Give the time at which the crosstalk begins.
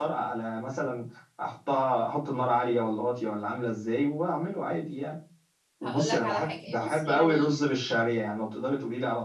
5.8 s

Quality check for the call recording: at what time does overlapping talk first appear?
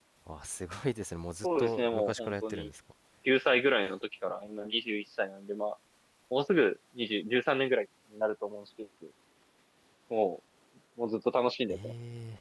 1.4 s

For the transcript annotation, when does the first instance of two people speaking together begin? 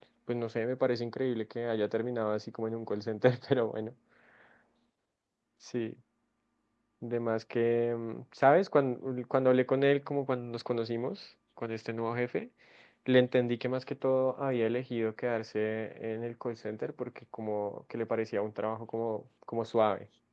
none

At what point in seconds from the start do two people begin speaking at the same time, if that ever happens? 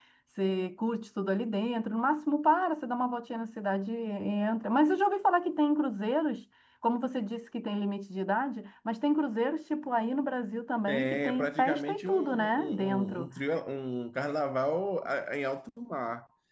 10.9 s

